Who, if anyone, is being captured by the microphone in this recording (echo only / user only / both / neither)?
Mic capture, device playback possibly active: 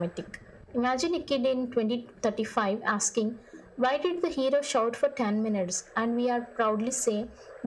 echo only